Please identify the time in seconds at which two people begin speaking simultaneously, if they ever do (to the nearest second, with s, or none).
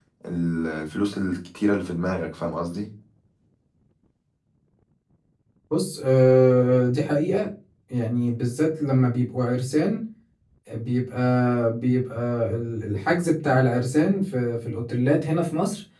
none